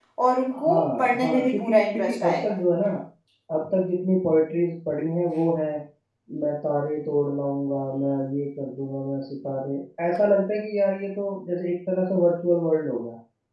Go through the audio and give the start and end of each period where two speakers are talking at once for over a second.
0.7-2.4

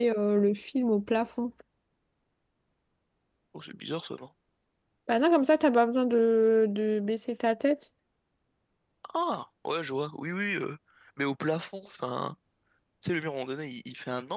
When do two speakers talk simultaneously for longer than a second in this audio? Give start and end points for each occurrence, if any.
none

